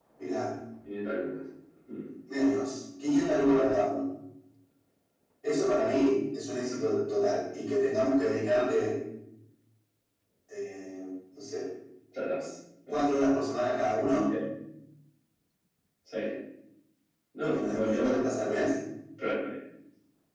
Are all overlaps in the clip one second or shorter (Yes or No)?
No